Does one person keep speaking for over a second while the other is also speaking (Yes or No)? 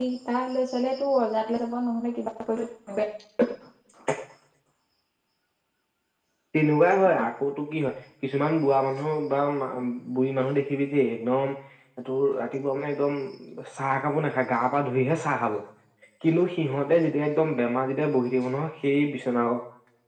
No